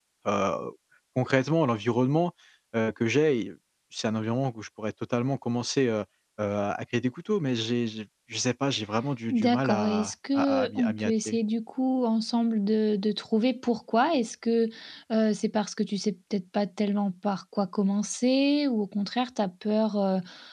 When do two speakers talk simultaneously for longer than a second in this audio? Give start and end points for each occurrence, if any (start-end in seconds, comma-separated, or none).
9.3-11.4